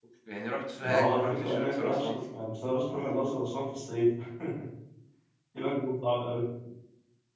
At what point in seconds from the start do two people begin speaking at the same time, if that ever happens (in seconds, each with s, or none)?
0.8 s